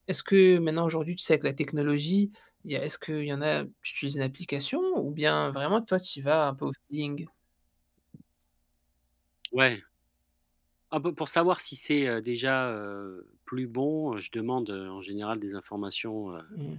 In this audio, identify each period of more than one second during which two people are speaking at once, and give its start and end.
none

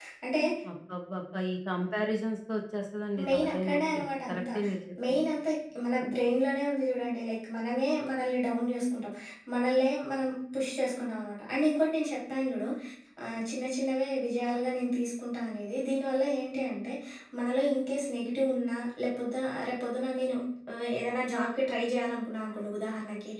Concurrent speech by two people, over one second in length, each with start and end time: 3.3-4.6

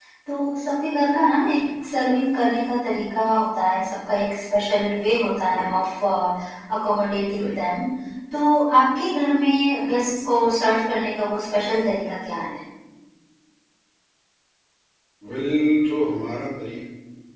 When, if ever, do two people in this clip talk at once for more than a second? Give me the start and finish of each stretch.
none

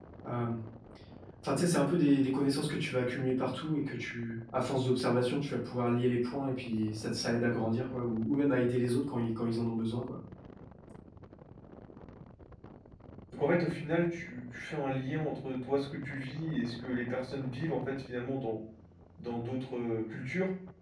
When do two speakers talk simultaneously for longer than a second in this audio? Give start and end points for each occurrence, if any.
none

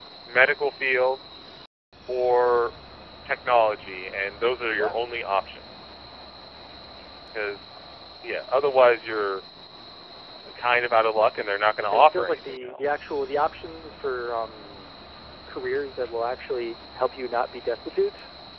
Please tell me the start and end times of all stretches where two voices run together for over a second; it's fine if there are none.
11.8-13.0

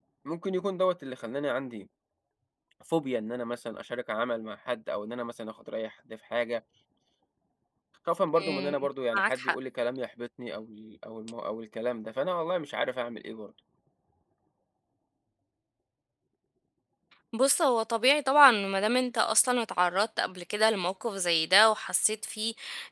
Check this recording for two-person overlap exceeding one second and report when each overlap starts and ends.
none

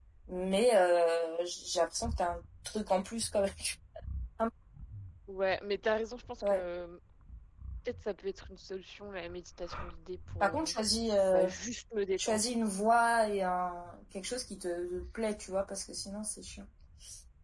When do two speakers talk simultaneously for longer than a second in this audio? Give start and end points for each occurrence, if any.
none

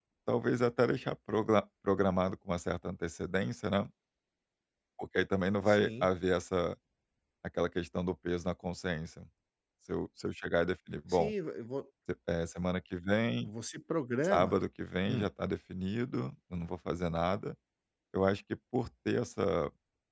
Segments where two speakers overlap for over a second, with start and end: none

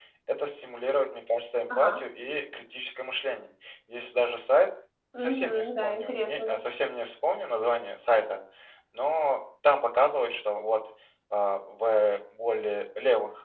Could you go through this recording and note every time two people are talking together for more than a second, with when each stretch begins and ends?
5.2-6.6

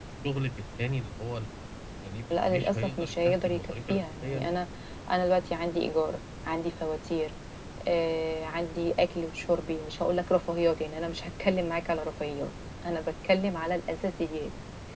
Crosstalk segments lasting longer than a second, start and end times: 2.3-4.5

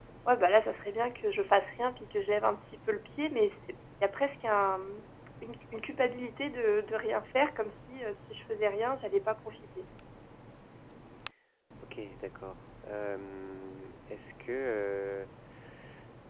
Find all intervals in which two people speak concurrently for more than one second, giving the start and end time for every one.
none

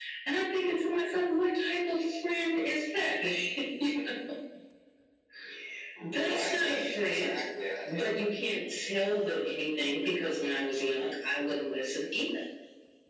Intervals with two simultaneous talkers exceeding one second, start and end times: 6.0-7.3

